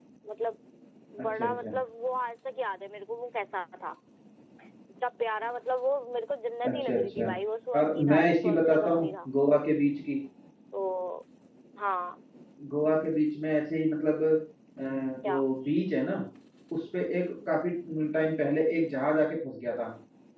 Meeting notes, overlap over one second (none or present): present